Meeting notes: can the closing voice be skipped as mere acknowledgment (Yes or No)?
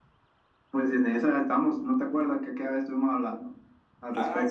No